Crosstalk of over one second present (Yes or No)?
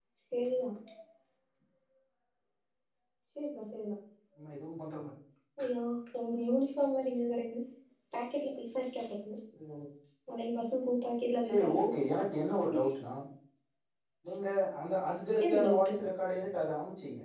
No